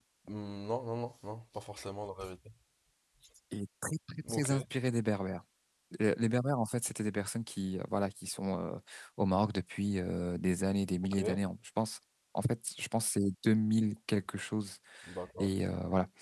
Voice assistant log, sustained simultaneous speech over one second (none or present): none